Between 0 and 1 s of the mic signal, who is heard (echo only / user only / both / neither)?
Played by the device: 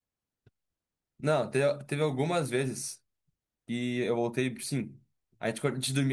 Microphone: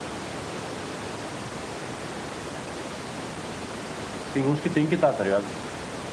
neither